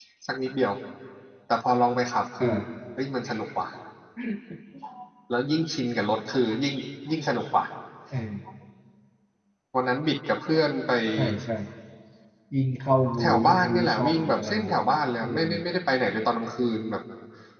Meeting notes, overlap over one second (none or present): present